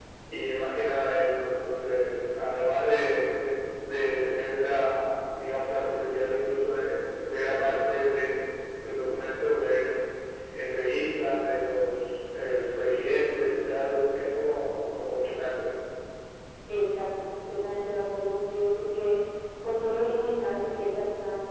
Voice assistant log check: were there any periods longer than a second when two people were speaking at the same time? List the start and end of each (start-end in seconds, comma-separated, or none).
none